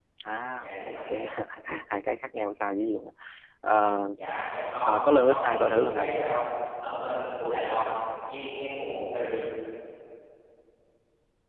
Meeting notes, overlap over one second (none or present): present